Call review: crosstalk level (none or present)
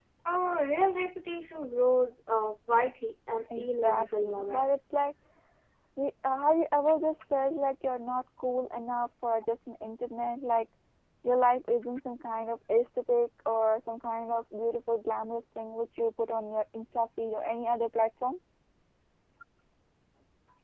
present